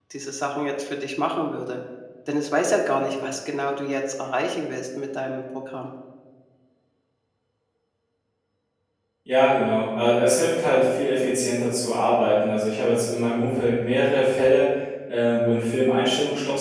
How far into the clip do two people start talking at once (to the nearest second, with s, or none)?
none